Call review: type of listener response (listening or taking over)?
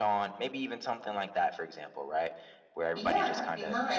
taking over